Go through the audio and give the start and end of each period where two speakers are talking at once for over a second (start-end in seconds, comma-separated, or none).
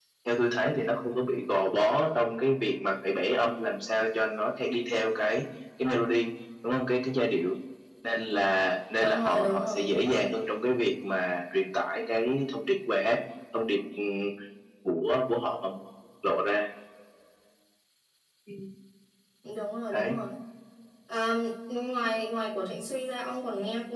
8.9-10.2